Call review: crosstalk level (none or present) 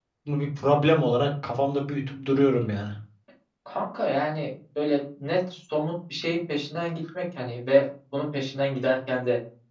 none